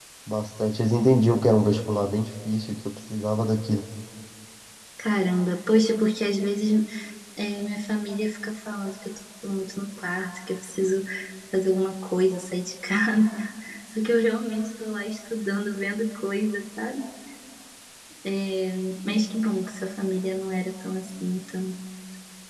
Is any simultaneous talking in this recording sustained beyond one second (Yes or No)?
No